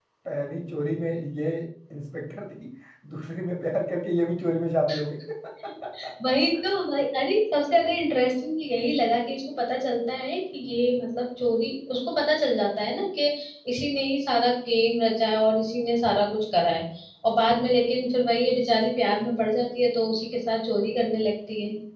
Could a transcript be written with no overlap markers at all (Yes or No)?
Yes